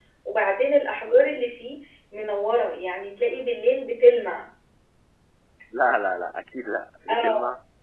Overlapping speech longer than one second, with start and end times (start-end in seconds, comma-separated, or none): none